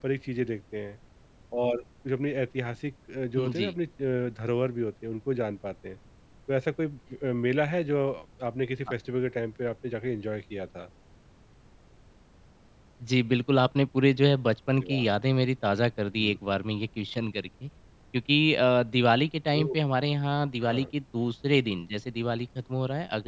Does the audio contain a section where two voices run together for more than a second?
No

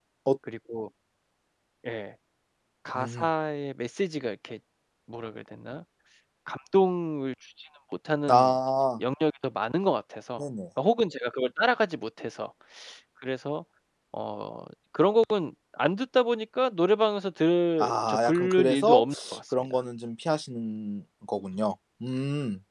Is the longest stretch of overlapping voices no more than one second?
No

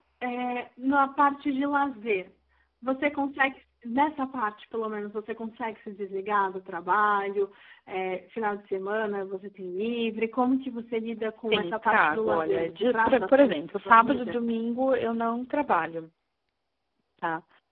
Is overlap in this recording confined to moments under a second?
No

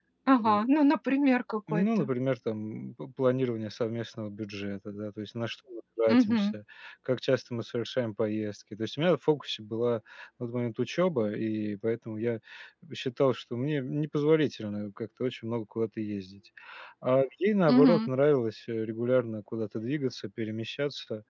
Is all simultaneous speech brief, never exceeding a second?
Yes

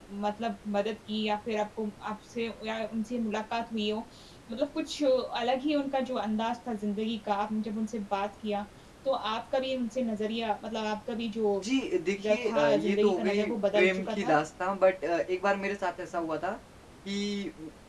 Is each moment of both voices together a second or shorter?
No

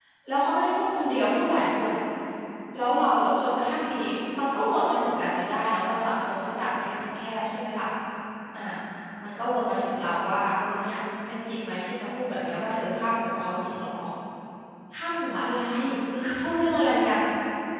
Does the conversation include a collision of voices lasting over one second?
No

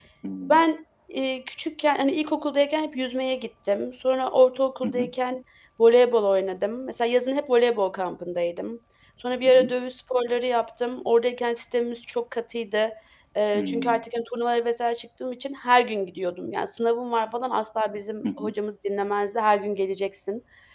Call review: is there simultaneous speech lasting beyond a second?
No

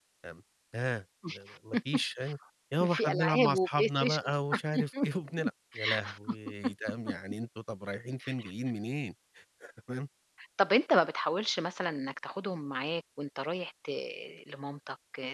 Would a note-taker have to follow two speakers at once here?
Yes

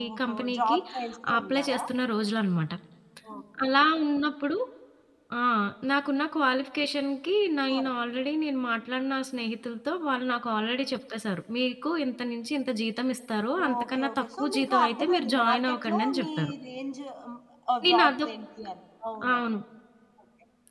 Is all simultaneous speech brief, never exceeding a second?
No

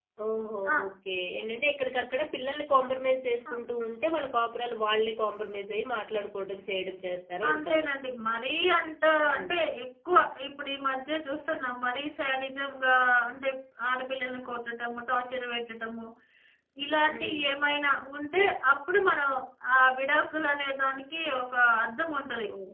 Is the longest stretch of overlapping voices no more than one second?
Yes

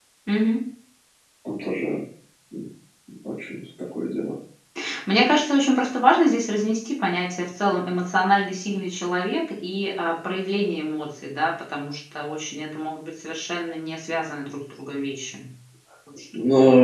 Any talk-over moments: No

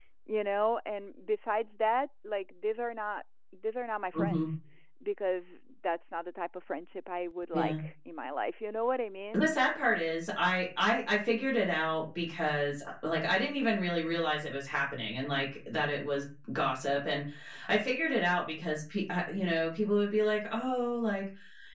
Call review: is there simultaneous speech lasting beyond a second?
No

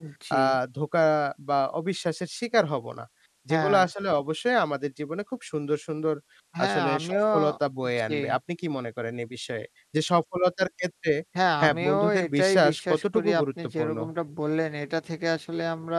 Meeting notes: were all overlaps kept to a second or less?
No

